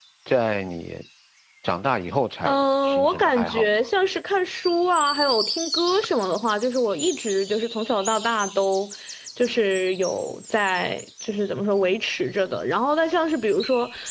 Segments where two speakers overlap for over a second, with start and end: 2.5-3.9

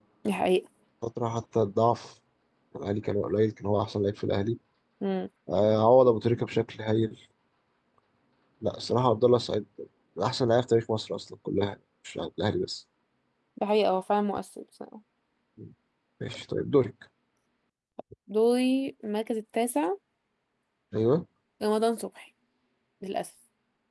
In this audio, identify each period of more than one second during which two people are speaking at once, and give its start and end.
none

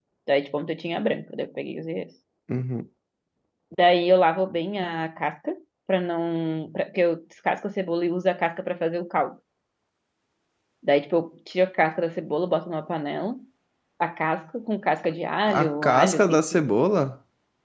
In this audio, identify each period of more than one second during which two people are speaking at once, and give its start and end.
15.5-16.8

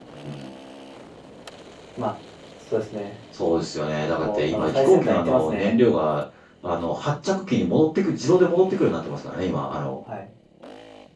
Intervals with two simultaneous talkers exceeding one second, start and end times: 4.2-5.8

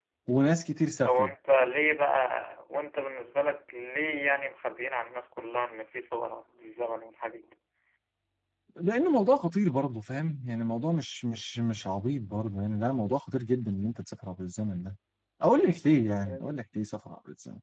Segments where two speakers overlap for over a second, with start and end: none

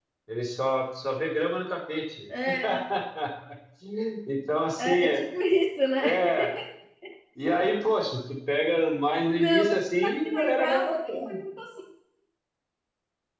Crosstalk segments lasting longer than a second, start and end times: 9.4-11.3

